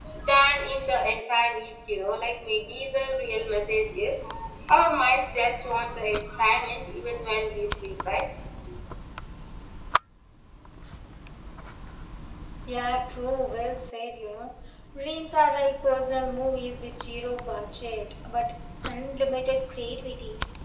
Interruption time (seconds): none

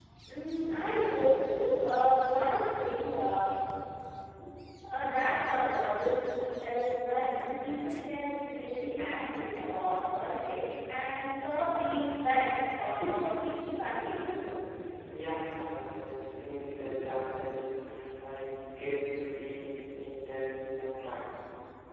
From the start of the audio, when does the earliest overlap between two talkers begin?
none

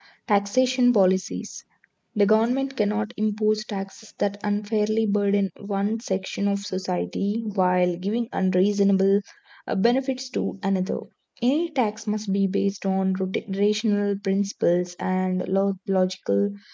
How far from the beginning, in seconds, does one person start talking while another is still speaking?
none

